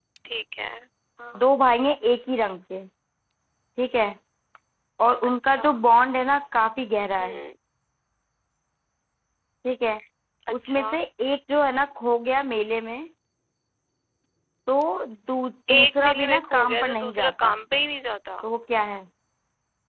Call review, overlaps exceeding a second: present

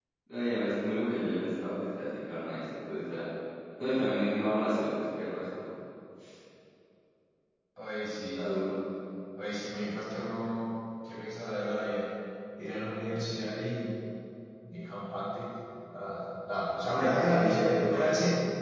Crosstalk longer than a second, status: present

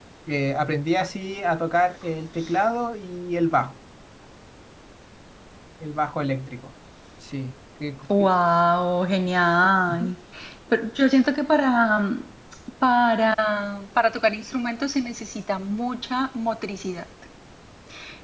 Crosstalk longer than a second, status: none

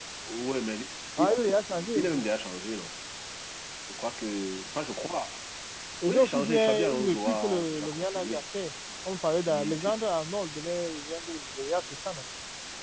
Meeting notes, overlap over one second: present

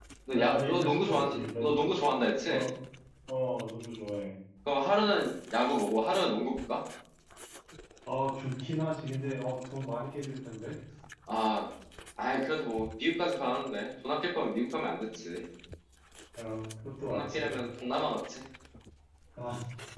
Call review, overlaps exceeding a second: present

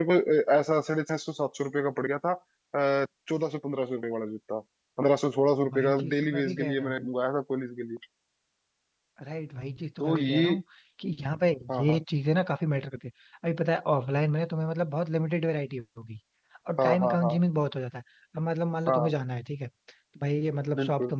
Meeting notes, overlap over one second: present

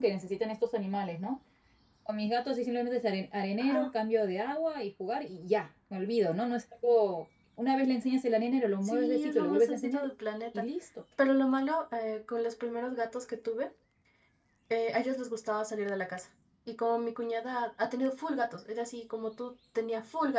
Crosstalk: present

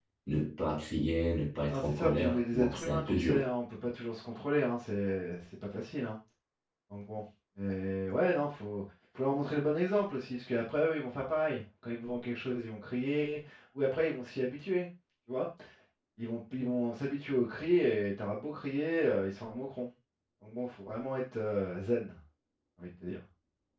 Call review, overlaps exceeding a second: present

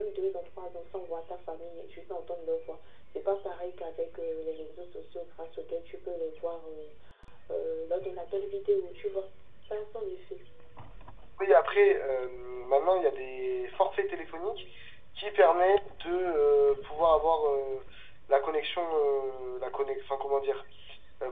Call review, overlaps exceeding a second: none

